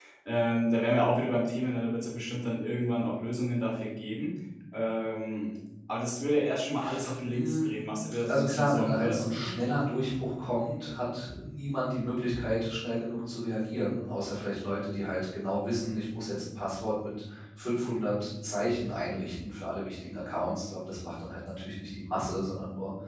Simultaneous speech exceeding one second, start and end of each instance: 8.3-9.5

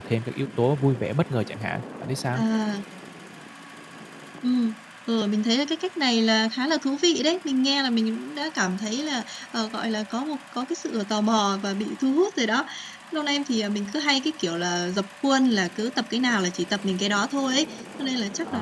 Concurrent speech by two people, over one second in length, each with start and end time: none

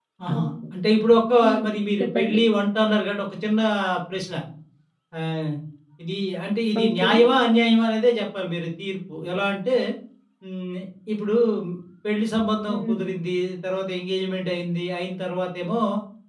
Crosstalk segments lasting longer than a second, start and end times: none

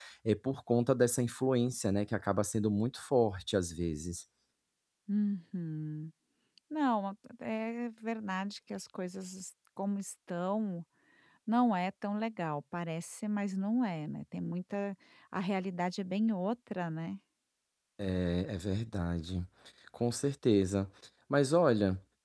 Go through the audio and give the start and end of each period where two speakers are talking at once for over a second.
none

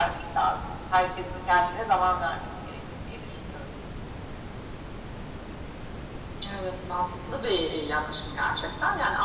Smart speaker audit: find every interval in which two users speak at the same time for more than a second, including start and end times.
none

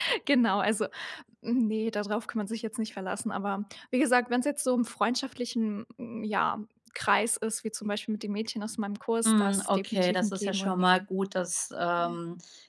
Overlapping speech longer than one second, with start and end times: 9.2-11.0

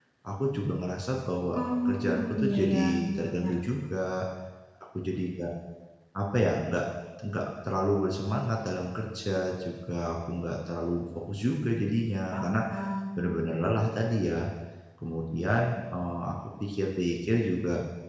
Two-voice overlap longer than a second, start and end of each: 1.5-3.5

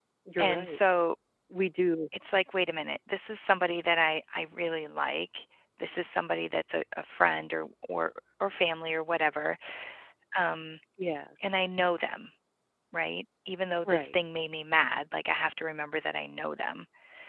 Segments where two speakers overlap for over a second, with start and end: none

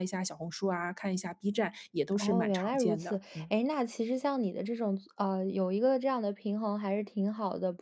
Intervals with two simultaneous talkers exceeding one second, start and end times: 2.2-3.4

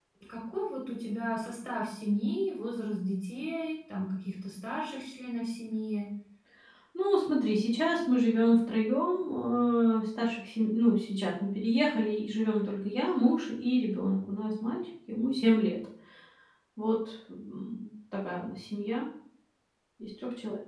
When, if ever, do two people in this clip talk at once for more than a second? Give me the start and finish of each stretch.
none

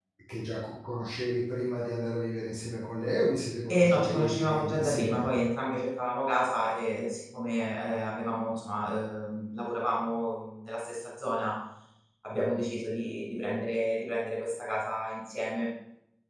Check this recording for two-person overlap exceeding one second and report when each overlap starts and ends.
3.7-5.3

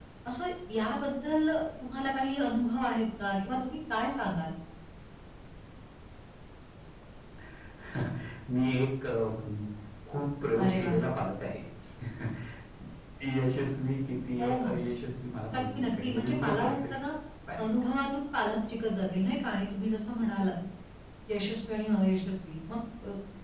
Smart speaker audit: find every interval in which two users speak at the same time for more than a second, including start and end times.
15.5-16.9

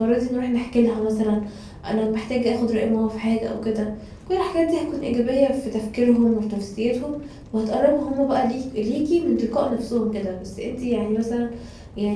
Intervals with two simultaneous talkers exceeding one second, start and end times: none

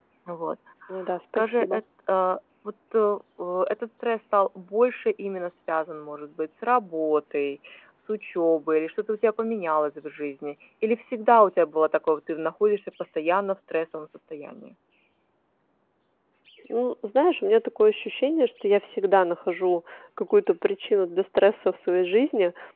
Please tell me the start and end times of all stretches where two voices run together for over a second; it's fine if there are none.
none

